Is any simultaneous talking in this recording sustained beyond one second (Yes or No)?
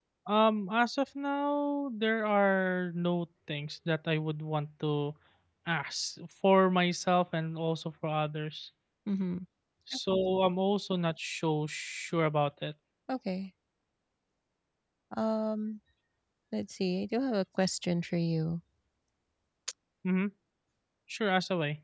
No